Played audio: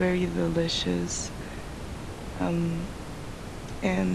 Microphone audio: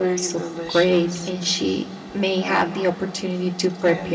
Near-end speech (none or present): present